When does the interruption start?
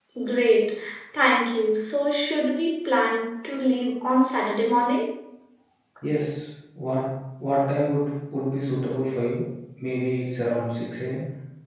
none

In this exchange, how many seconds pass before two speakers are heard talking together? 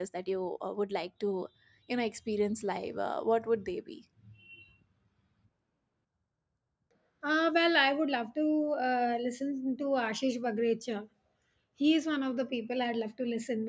none

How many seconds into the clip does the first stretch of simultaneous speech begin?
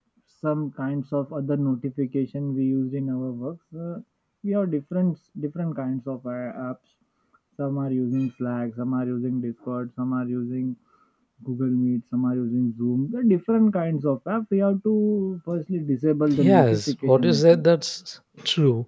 16.3 s

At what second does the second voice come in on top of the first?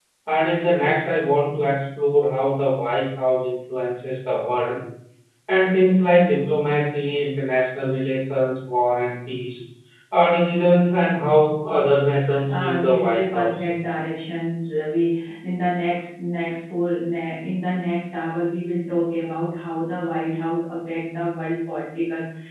12.3 s

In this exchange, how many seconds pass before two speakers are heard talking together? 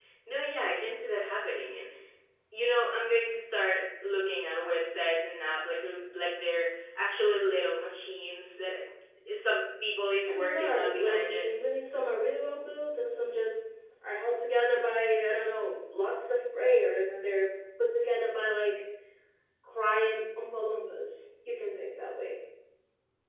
10.3 s

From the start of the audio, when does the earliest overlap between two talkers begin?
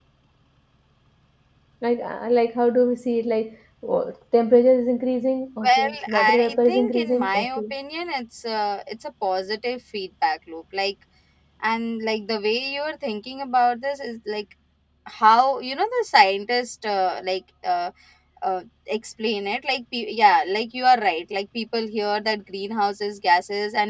5.6 s

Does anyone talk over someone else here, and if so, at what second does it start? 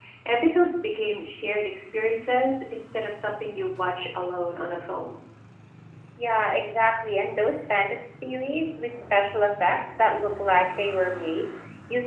none

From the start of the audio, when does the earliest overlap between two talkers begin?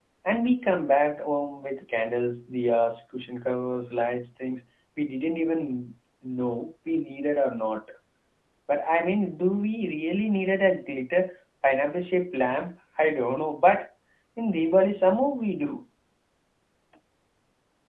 none

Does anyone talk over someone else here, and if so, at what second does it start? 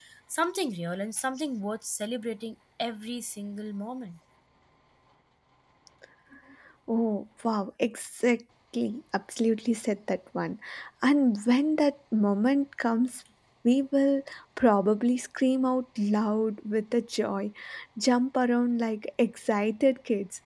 none

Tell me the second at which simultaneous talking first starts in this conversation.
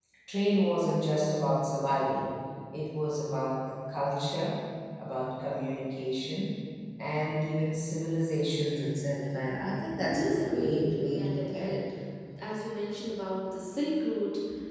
10.1 s

